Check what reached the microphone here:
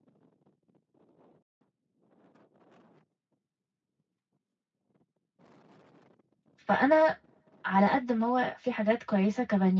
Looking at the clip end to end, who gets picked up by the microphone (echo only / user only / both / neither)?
user only